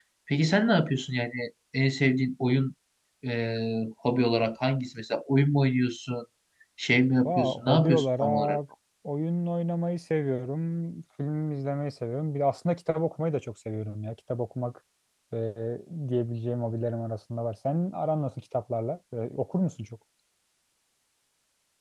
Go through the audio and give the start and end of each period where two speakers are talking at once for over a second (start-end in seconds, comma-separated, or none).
7.2-8.6